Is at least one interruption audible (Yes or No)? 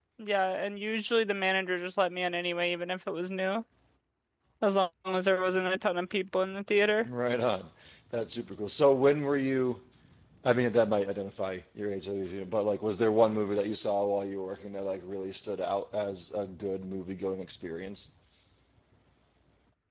No